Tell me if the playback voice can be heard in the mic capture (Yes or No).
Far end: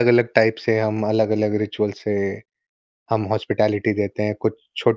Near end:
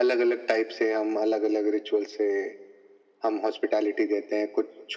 Yes